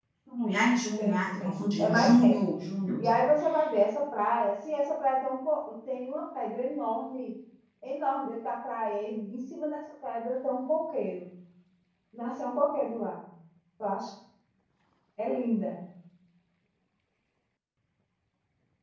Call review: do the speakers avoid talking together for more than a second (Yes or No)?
No